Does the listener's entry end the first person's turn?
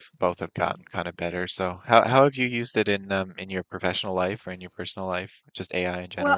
Yes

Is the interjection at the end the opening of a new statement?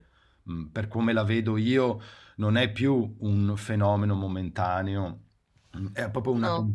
No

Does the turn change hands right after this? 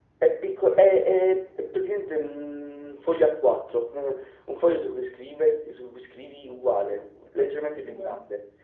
No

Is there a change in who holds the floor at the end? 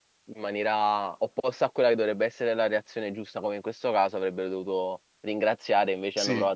No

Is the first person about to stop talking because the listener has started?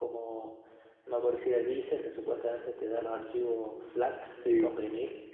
Yes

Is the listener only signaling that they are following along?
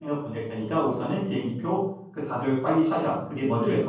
No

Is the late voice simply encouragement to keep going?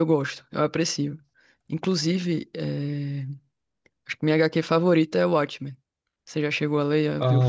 No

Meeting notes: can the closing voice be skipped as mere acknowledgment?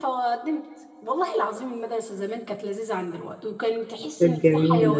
Yes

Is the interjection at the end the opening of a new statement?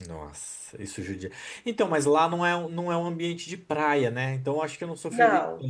No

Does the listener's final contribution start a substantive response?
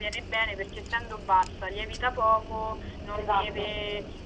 No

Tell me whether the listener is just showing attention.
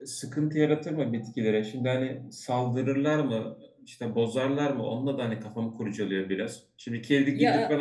Yes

